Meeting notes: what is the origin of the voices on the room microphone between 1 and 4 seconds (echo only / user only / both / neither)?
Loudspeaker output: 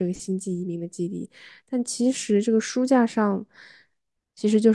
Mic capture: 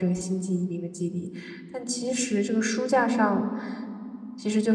echo only